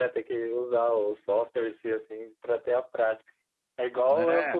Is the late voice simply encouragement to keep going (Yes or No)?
Yes